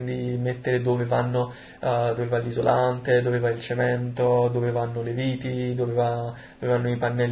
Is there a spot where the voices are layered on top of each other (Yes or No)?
No